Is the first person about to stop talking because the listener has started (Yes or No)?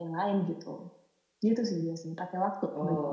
Yes